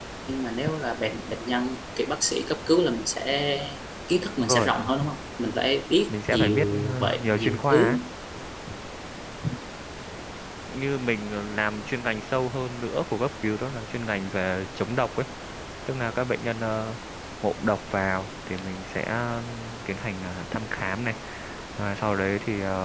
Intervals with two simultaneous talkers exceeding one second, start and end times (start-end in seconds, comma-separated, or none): 6.1-7.9